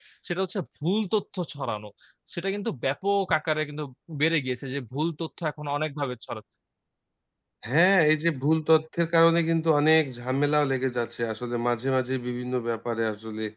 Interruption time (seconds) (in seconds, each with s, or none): none